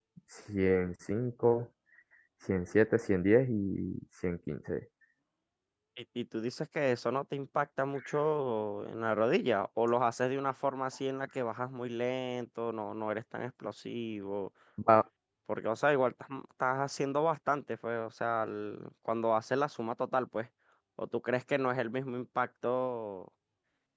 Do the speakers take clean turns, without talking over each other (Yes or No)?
Yes